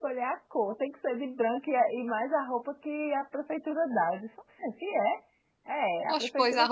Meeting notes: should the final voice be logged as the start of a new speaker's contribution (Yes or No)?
Yes